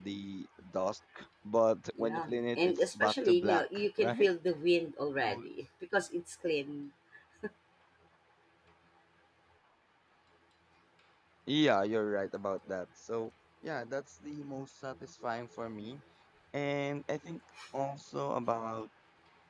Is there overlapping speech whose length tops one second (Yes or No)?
Yes